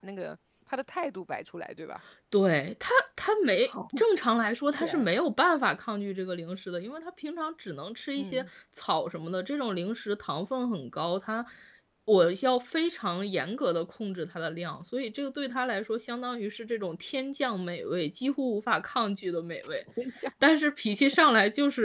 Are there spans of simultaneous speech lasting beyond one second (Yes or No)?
No